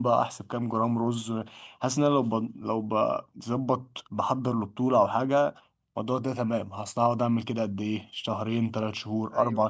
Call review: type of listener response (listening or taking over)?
listening